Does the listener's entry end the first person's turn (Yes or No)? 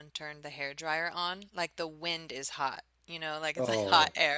No